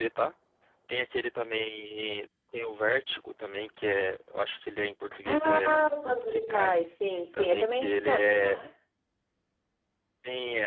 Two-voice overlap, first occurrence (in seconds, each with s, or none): 5.2 s